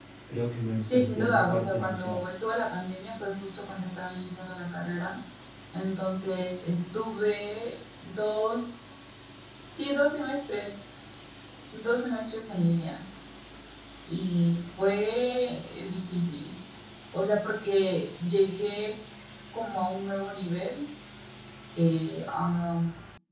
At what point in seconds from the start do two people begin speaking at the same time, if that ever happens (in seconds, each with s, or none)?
0.8 s